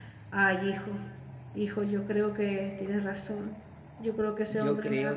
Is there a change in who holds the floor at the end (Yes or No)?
Yes